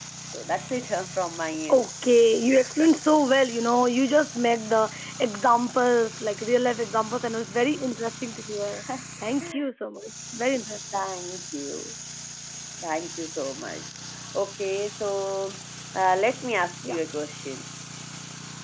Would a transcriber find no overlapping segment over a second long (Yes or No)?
Yes